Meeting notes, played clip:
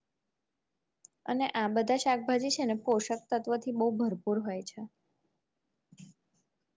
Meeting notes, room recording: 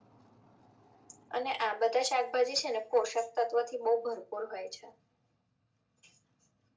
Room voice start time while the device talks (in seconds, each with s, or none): none